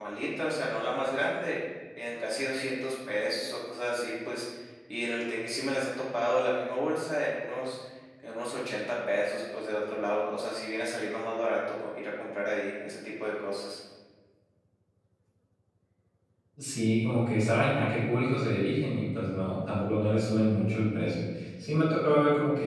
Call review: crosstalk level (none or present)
none